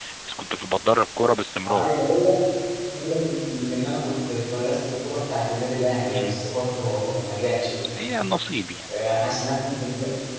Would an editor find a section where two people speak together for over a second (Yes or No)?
No